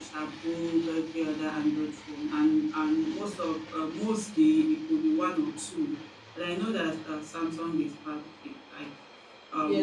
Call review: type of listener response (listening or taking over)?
taking over